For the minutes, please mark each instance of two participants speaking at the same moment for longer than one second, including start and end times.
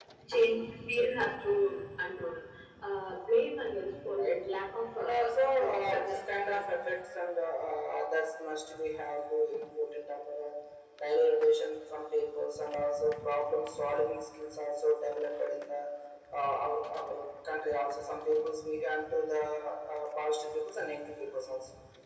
5.0-6.6

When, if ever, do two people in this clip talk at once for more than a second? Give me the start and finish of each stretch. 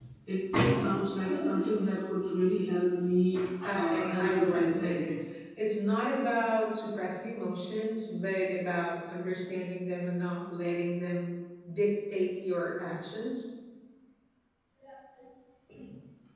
3.6-5.1

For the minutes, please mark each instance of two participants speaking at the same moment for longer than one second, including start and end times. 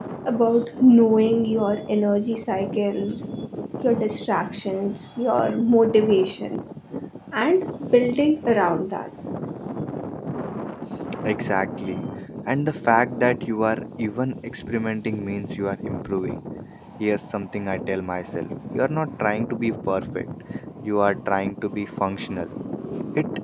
none

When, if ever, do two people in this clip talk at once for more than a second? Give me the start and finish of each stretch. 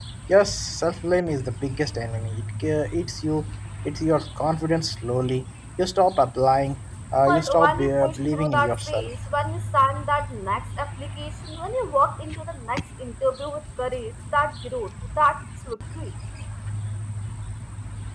7.3-9.1

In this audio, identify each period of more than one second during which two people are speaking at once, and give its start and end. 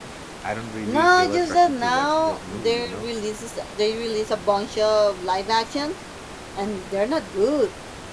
0.8-3.1

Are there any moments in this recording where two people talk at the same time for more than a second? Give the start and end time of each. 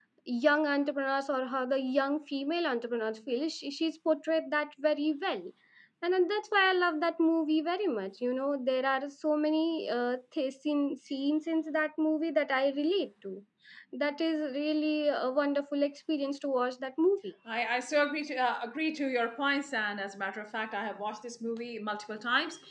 none

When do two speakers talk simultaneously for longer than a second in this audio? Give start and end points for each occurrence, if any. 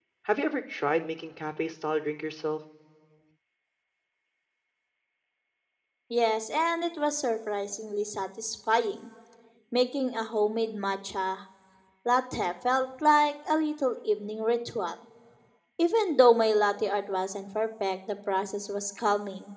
none

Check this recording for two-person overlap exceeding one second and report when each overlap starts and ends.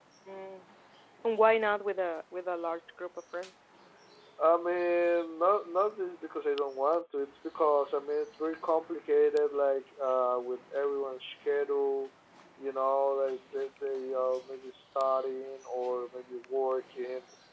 none

